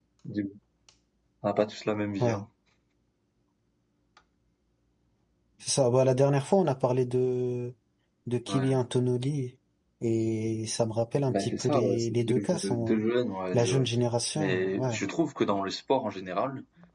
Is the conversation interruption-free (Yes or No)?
No